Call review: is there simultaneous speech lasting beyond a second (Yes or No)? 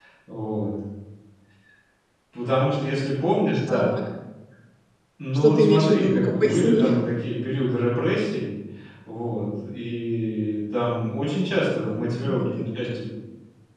Yes